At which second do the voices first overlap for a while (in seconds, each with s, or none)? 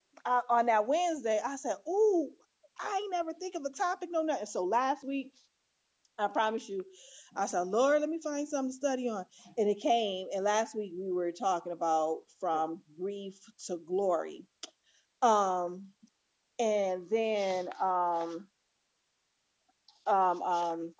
none